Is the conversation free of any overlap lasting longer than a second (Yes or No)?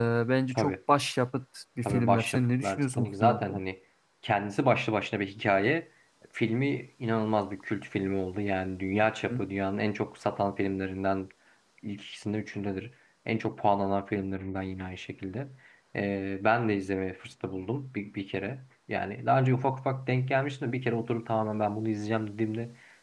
No